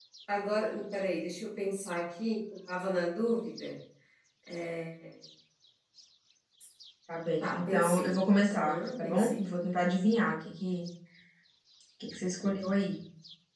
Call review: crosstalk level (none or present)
present